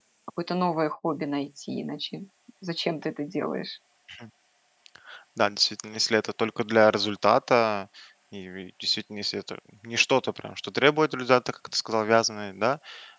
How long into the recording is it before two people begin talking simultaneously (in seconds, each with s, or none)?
none